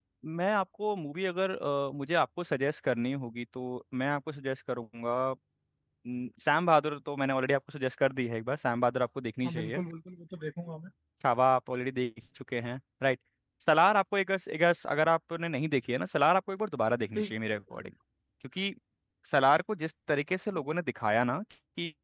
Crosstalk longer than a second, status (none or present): none